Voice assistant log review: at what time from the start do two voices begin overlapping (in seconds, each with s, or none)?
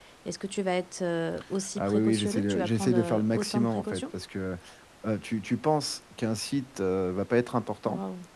1.8 s